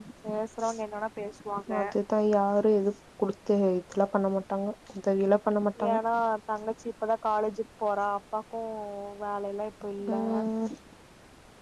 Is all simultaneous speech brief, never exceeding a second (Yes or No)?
Yes